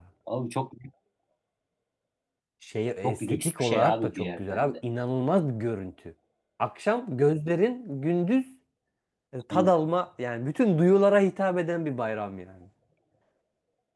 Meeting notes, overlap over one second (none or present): present